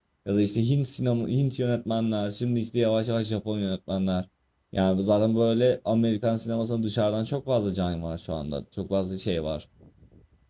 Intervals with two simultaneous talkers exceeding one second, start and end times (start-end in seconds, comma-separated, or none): none